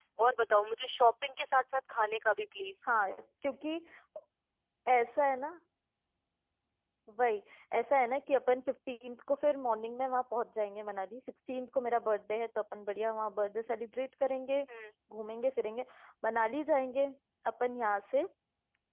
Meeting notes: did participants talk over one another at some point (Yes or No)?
No